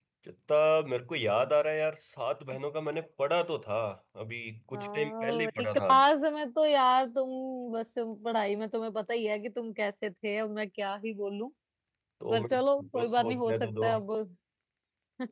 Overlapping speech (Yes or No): Yes